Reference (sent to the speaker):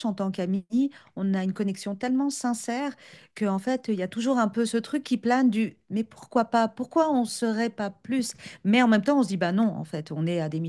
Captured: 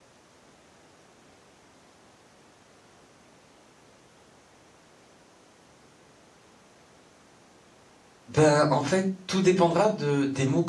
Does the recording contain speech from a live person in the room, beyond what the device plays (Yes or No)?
Yes